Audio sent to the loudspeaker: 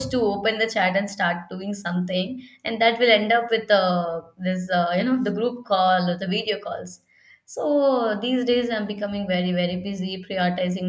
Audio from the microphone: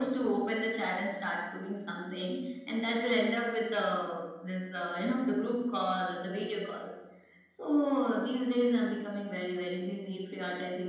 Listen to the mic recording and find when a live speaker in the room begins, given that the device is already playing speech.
none

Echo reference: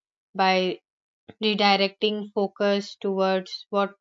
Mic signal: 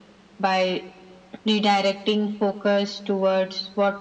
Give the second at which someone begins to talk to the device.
none

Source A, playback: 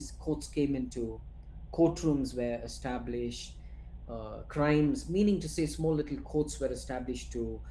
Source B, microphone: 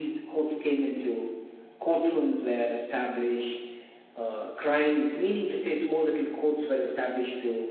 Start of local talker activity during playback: none

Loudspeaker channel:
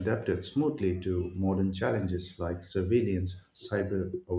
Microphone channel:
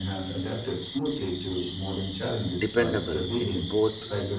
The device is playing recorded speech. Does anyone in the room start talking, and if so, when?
2.6 s

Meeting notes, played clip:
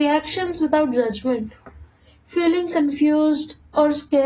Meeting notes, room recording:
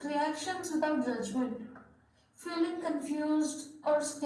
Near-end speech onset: none

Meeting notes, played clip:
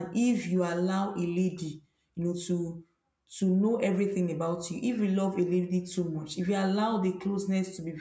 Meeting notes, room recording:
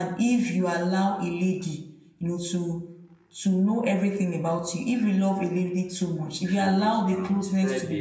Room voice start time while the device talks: 6.4 s

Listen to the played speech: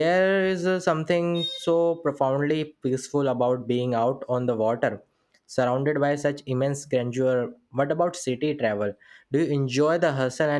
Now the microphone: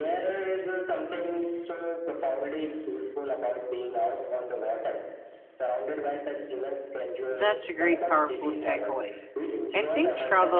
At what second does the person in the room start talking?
7.3 s

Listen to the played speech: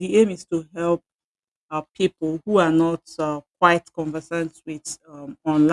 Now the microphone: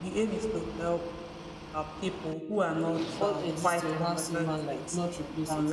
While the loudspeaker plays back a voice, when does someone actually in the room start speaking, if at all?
3.2 s

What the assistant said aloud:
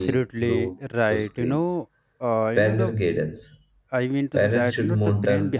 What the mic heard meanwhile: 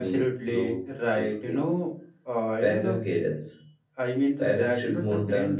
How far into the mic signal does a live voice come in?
none

